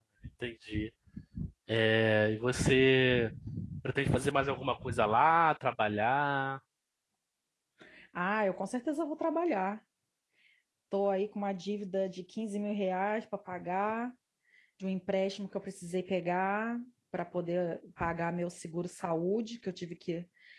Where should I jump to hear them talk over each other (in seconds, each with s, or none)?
none